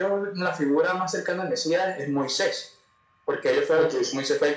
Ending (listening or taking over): listening